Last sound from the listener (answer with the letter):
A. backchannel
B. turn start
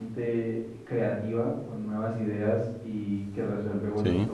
A